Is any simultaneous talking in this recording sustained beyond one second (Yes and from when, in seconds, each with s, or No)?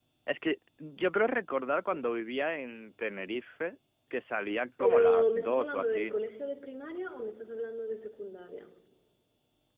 Yes, from 4.8 s